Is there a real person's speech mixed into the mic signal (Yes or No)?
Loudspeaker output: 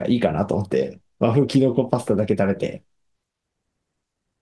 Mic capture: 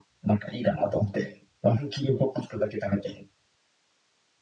No